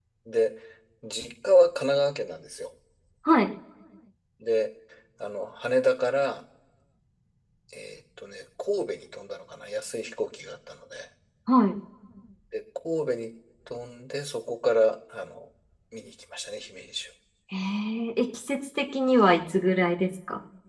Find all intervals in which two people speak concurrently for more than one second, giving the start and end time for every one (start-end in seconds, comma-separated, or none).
none